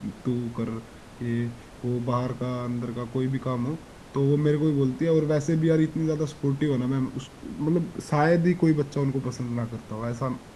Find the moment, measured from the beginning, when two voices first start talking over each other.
none

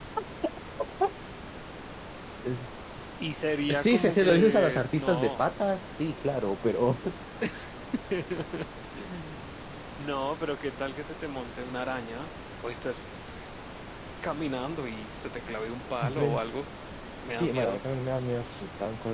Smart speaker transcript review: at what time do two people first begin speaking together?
4 s

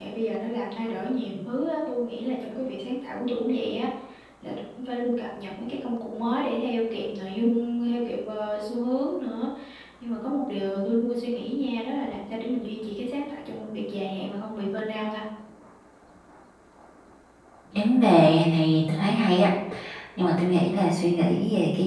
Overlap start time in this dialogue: none

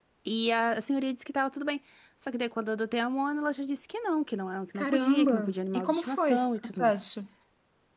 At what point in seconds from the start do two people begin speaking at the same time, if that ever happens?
5 s

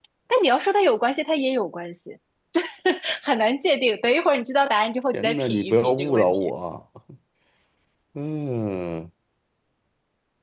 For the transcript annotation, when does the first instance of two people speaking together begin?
5 s

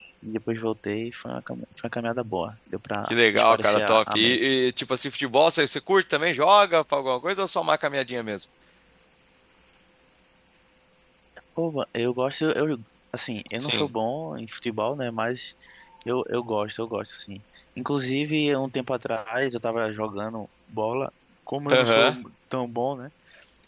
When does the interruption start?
3 s

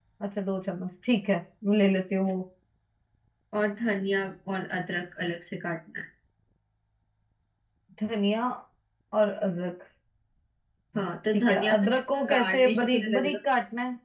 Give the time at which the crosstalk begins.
11 s

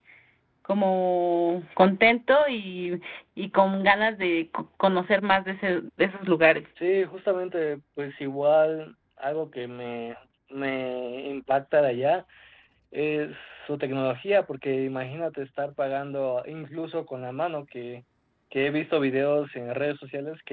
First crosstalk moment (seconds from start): none

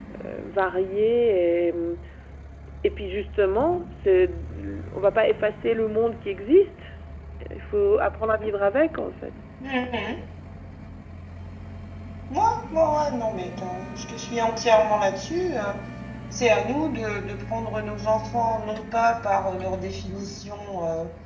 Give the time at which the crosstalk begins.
none

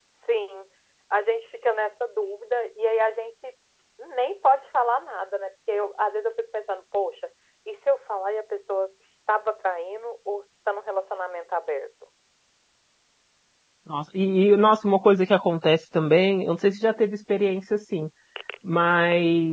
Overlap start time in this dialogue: none

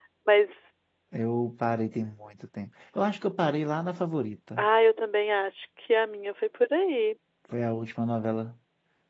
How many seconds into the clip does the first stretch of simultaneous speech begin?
none

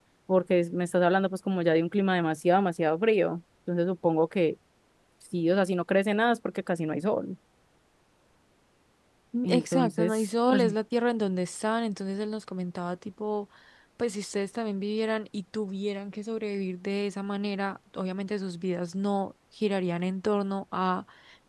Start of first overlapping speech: 9 s

